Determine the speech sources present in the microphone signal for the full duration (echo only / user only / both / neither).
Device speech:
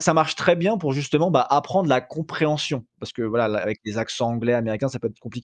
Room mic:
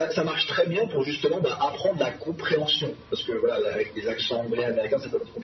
echo only